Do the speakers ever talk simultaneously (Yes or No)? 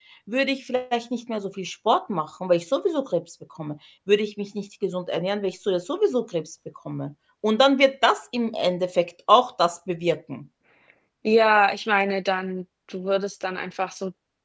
No